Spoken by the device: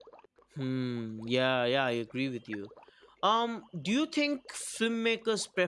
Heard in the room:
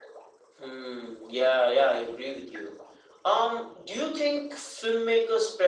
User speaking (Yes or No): No